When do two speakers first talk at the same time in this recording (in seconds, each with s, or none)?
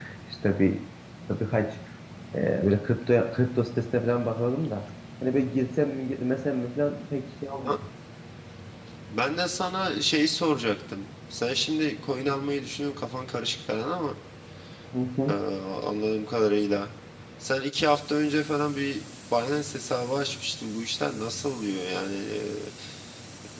none